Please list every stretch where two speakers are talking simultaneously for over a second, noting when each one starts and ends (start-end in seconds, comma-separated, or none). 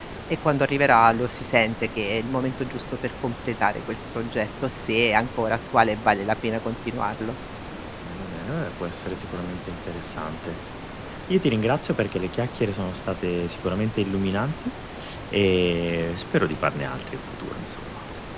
none